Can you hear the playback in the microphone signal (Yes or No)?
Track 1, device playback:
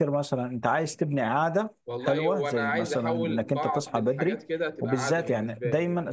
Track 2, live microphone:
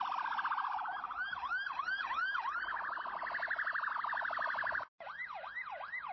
No